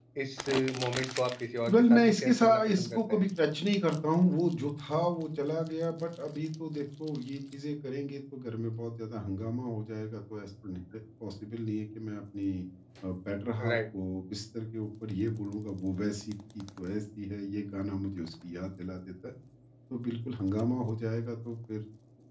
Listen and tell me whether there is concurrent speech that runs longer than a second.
Yes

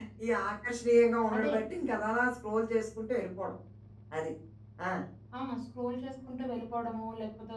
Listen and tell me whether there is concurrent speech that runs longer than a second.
No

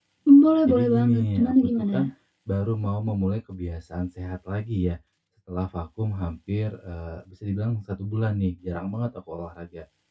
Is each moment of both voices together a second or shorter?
No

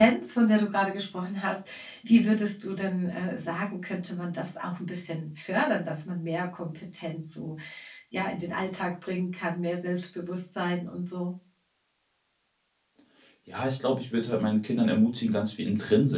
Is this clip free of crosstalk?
Yes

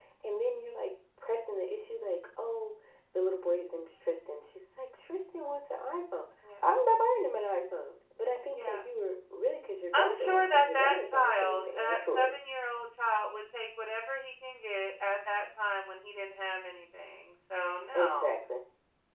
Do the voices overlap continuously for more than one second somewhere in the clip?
Yes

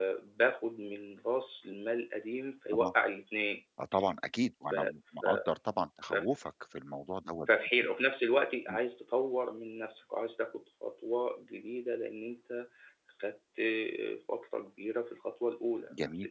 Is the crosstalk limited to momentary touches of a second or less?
Yes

